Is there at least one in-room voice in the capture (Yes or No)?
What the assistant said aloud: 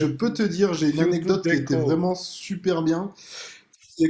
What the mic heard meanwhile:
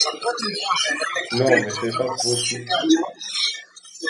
Yes